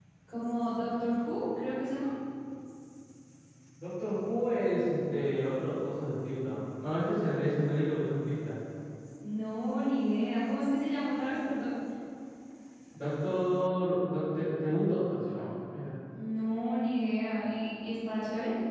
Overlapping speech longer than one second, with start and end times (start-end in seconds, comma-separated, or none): none